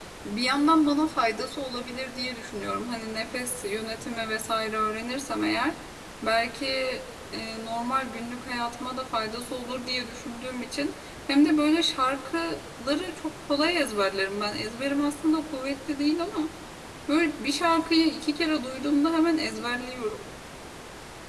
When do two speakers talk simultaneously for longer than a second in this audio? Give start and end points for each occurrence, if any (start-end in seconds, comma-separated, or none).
none